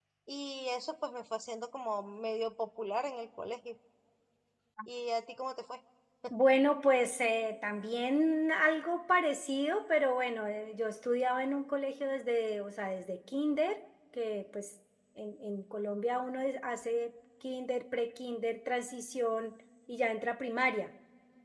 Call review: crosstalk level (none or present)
none